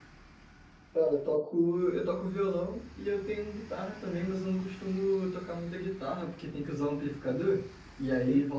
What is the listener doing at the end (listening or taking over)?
listening